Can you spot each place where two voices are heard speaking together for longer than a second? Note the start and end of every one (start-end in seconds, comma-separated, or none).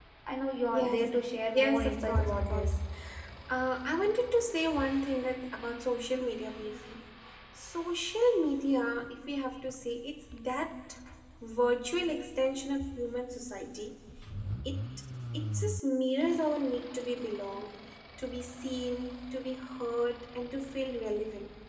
1.5-2.8